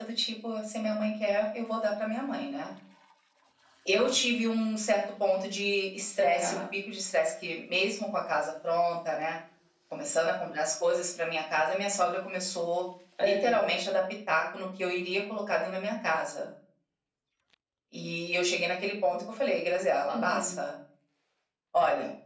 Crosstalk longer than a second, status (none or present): none